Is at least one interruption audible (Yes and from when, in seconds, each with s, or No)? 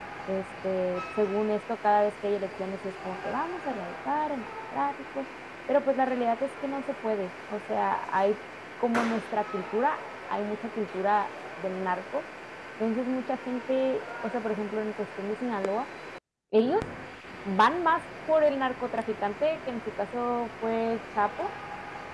No